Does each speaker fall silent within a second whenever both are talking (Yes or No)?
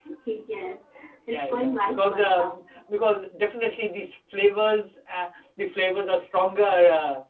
No